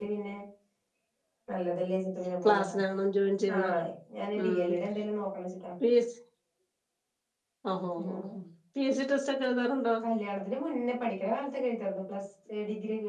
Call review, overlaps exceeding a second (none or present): none